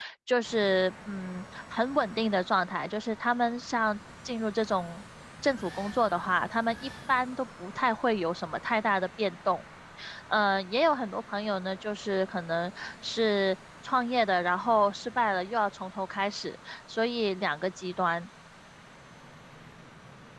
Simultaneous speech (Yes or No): No